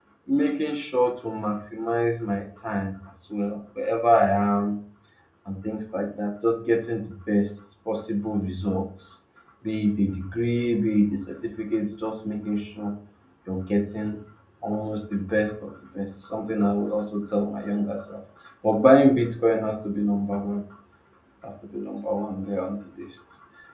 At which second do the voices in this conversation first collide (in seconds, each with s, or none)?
none